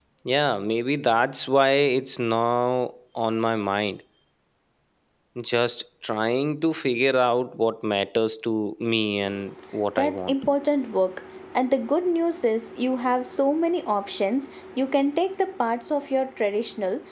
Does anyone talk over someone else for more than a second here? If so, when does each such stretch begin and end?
none

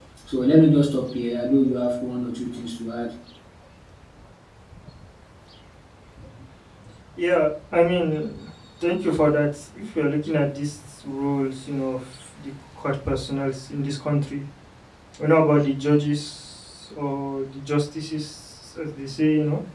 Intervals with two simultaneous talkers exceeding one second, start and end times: none

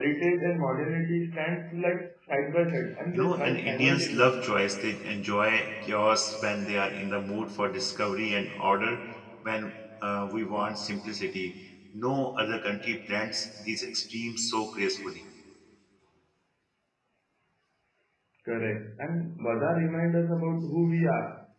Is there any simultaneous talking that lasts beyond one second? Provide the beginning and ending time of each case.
3.1-4.5

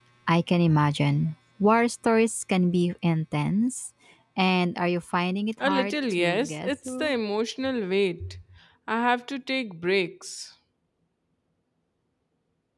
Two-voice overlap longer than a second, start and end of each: 5.6-7.1

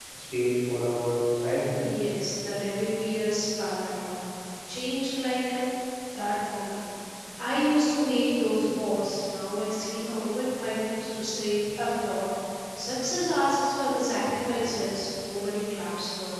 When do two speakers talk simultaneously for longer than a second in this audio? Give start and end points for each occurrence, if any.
none

